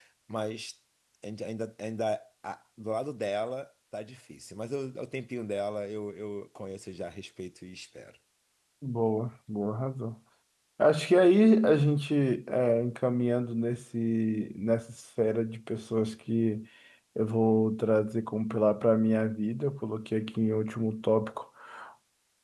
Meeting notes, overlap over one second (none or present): none